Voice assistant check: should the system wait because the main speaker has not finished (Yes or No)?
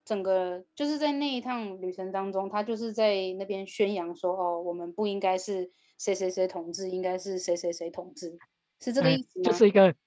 No